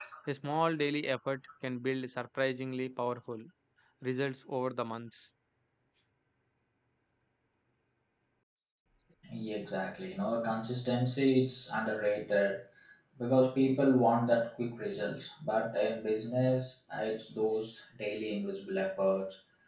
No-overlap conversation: Yes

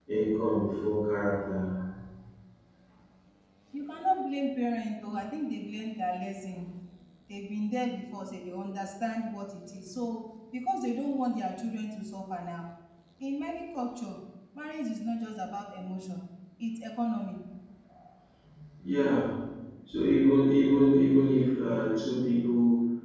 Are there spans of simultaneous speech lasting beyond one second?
No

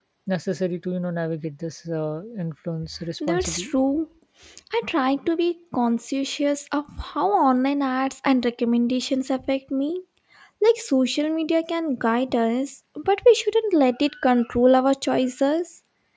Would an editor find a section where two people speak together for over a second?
No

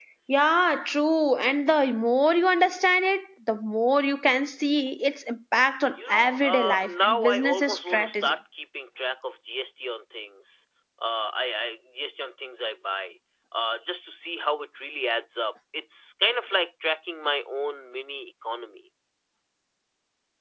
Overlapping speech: Yes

